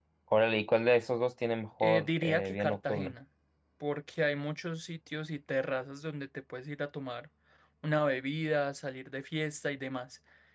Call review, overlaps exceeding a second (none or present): present